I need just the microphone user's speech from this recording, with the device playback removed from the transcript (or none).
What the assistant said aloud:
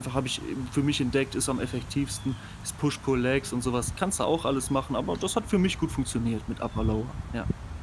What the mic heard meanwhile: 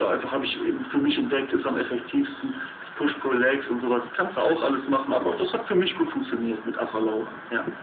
none